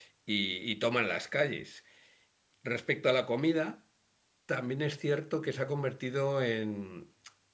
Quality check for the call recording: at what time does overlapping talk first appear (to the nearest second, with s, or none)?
none